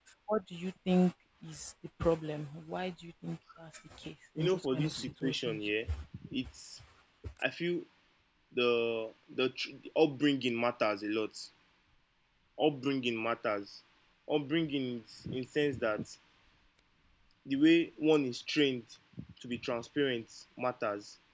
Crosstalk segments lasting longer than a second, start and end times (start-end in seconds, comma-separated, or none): 4.4-5.6